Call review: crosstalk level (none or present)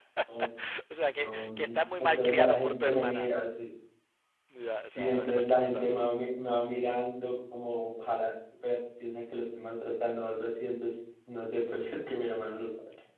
present